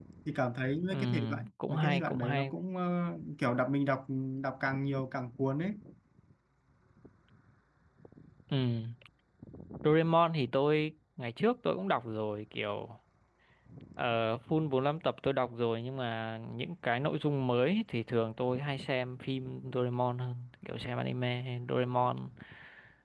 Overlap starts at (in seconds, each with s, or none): 0.9 s